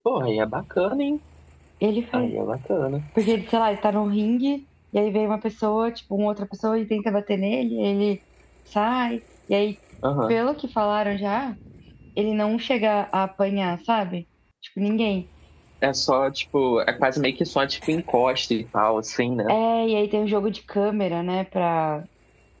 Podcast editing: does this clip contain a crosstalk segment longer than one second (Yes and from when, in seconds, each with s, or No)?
No